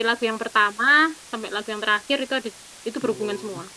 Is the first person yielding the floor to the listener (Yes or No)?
Yes